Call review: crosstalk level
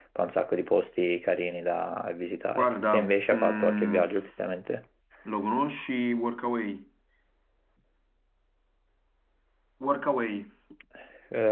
present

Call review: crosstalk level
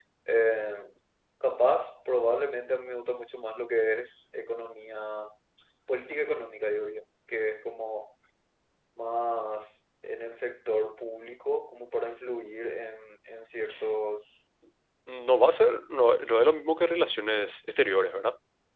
none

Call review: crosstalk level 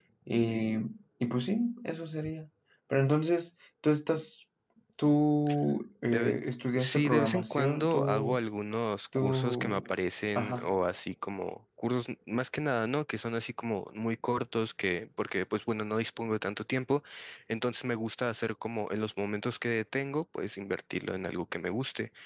present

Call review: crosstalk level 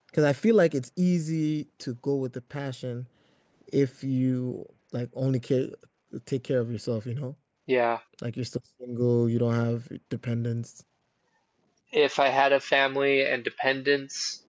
none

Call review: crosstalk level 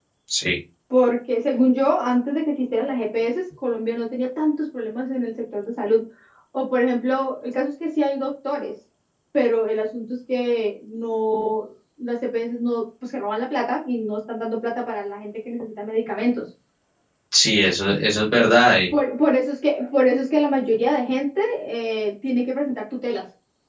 none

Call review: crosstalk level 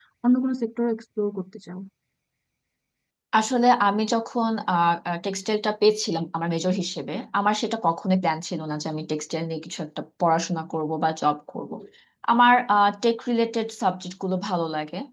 none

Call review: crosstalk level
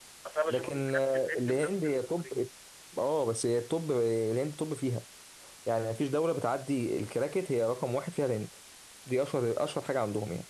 present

